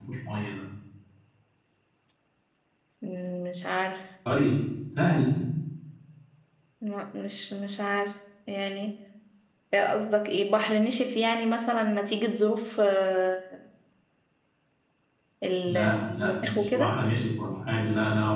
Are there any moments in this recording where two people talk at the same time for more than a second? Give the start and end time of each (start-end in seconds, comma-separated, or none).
15.7-16.9